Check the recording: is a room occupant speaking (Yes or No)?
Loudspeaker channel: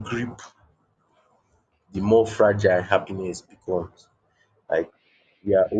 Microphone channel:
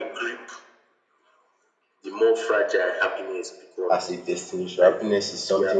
Yes